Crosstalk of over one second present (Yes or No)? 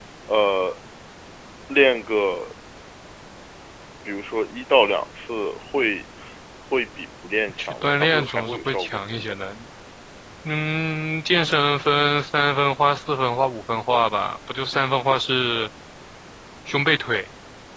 Yes